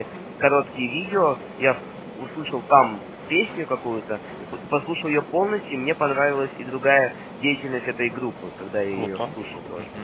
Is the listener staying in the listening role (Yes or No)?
No